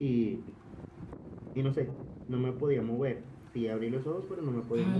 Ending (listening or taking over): taking over